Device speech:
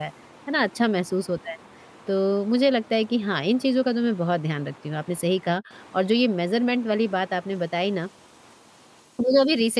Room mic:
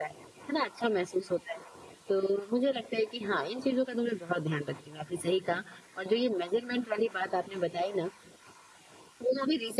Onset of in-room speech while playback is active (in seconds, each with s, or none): none